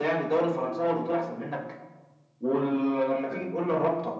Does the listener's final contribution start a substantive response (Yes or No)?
No